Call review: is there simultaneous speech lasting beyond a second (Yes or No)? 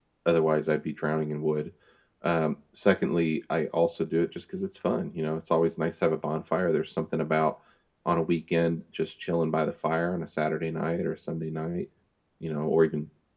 No